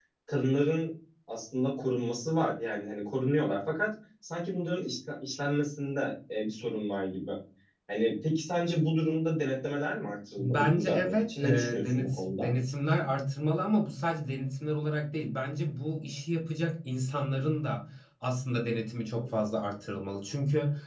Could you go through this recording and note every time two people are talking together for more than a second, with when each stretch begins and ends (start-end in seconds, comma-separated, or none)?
10.4-12.5